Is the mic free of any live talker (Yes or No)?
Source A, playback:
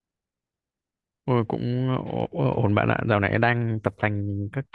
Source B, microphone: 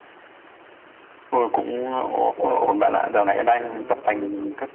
No